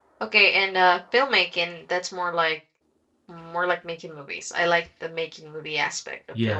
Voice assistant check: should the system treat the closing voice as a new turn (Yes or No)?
Yes